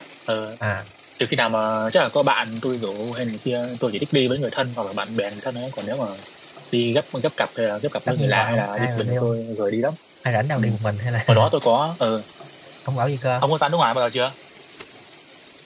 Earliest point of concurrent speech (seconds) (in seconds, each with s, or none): 8.1 s